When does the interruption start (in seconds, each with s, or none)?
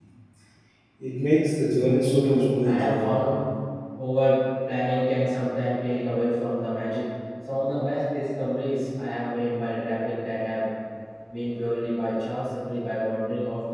1.9 s